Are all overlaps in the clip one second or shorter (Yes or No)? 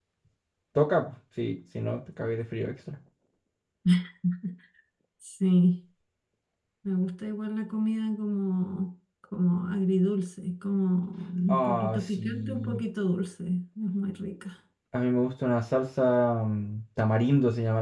No